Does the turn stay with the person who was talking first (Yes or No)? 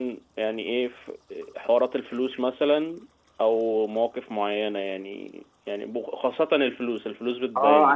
No